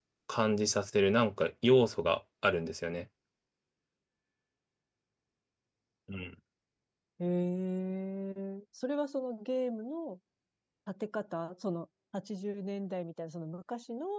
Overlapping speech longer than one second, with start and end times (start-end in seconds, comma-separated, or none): none